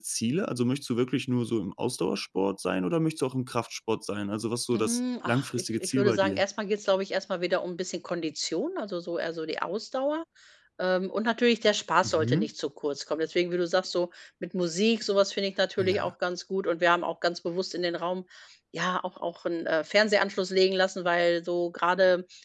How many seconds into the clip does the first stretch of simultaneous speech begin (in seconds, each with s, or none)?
4.7 s